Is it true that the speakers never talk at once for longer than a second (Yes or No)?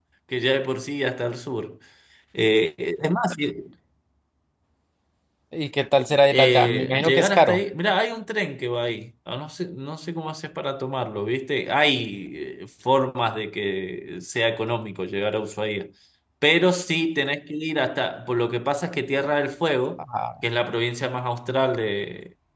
No